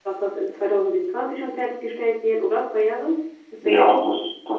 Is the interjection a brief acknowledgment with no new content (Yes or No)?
No